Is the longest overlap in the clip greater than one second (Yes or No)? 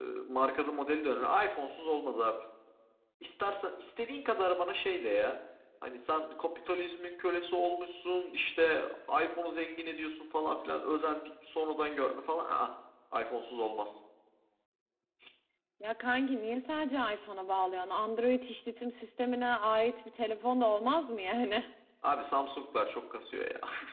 No